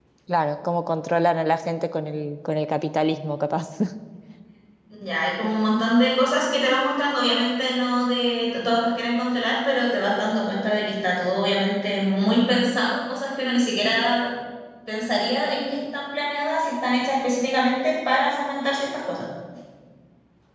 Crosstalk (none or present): none